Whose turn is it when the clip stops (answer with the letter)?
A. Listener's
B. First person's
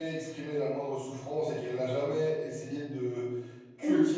B